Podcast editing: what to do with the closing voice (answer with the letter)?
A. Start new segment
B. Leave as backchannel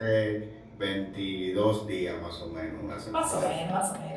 A